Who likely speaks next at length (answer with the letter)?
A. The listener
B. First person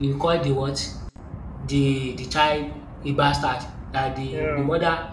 B